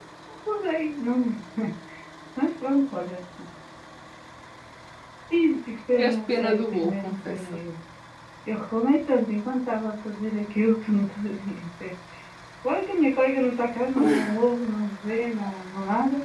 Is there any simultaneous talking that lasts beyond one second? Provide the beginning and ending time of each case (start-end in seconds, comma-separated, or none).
6.0-7.4